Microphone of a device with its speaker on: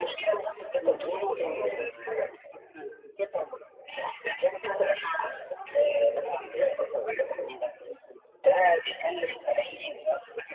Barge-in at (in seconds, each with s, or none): 0.8 s